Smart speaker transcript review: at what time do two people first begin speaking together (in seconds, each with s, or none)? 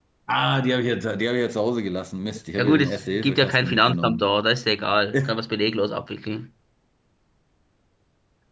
2.6 s